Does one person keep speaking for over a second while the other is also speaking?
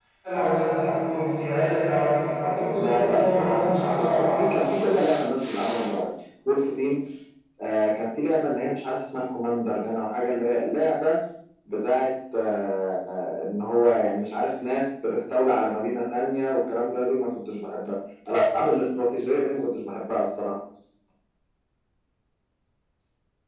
Yes, from 2.8 s

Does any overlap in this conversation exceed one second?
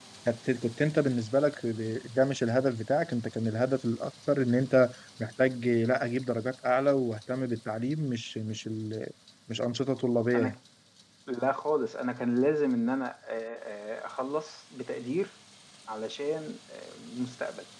No

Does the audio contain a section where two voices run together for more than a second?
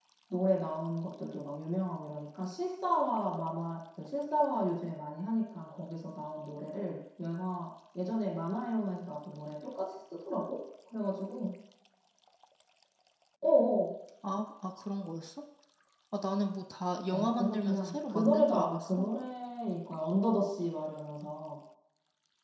Yes, from 17.1 s

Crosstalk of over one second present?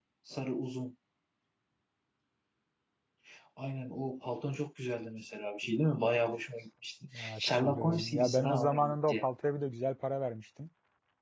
Yes, from 7.0 s

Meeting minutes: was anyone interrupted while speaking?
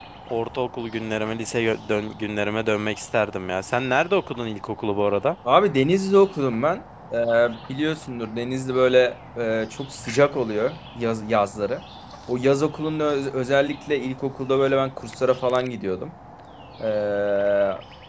No

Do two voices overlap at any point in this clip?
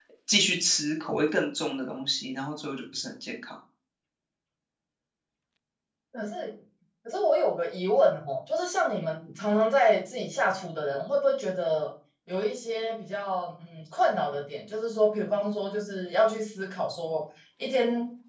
No

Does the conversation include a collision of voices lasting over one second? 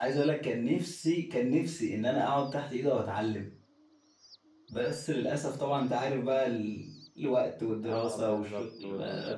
Yes, from 7.8 s

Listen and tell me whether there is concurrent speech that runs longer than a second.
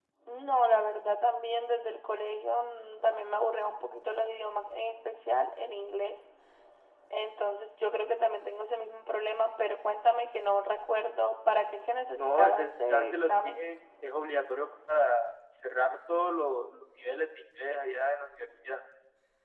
Yes, from 12.2 s

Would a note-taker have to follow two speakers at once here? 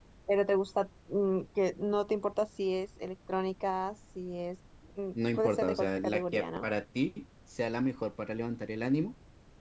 Yes, from 5.2 s

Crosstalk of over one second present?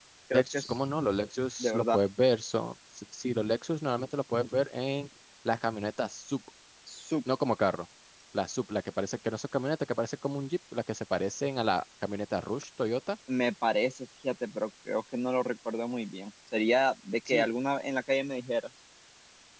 No

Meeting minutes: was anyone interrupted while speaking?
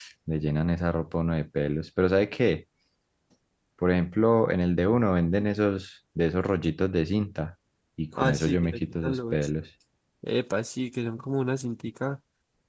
Yes, from 8.2 s

